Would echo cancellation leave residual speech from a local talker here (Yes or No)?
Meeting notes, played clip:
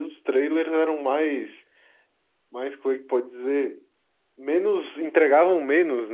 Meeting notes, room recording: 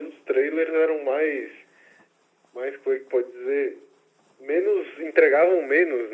No